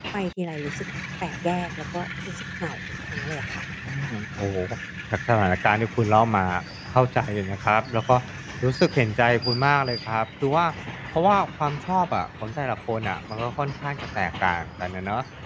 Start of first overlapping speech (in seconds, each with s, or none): none